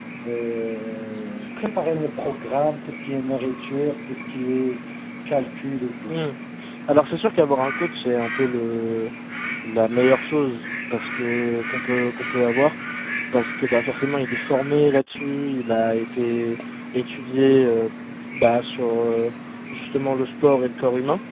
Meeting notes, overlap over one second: none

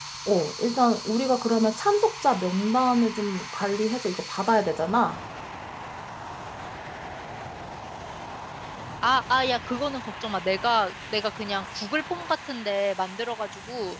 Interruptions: none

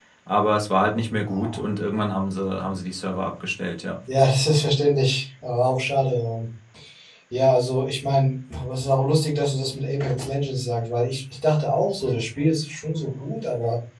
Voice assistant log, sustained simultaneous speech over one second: none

